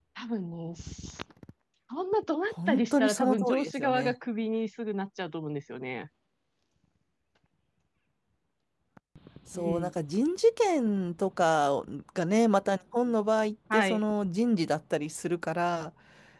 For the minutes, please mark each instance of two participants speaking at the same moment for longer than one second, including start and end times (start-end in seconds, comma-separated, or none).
2.7-4.1